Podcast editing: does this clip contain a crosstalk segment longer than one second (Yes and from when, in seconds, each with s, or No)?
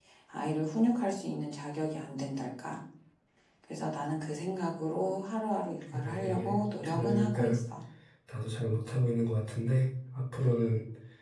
Yes, from 5.9 s